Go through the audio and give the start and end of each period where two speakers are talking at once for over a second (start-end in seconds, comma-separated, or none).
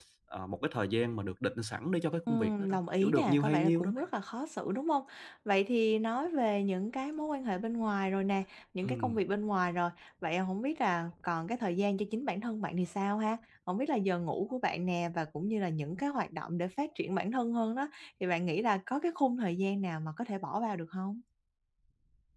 2.3-4.0